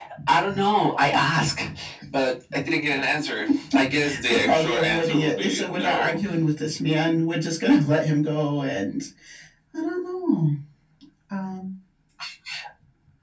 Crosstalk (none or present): present